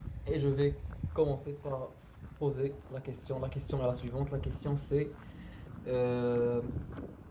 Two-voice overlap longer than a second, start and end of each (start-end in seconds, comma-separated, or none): none